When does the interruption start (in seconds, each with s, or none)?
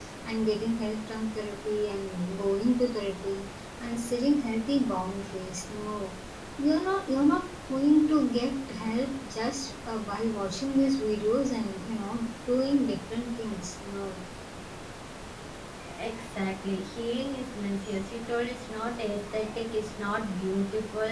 none